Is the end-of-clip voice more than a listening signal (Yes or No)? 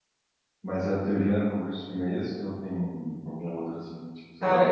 Yes